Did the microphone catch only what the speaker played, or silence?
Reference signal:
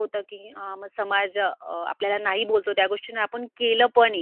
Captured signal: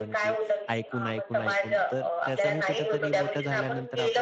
No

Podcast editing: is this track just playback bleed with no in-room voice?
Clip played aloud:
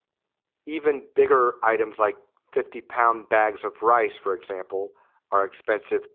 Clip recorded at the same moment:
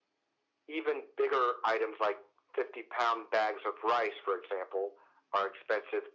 Yes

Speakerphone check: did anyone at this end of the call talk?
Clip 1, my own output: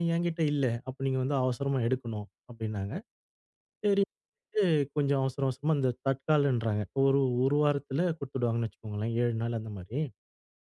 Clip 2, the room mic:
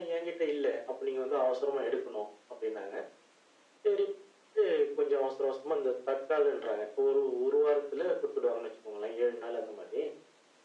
No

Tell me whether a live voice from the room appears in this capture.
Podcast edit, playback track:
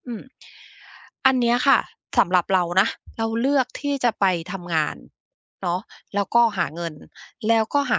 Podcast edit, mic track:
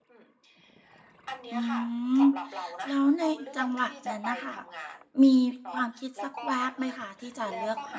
Yes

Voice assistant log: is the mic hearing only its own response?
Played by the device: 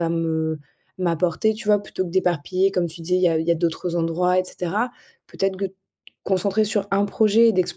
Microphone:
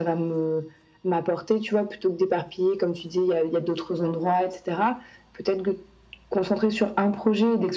Yes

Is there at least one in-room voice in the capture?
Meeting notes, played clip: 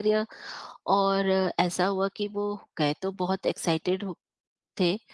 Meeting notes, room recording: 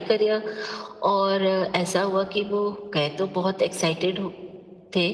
No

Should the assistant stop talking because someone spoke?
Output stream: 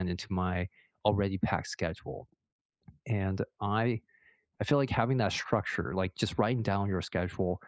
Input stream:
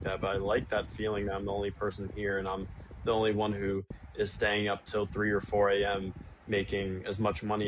Yes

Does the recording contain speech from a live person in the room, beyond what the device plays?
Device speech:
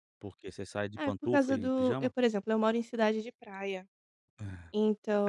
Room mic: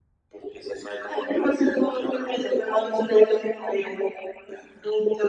No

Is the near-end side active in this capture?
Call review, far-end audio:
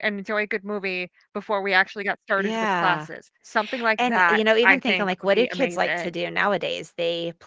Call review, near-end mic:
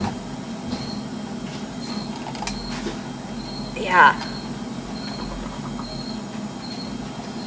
Yes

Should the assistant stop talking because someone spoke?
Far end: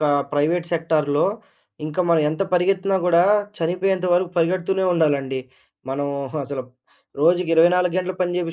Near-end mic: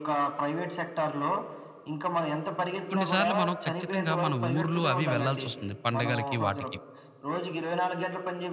Yes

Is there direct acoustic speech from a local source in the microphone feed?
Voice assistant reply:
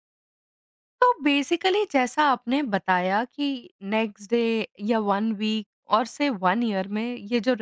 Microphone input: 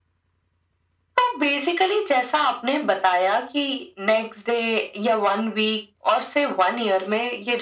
No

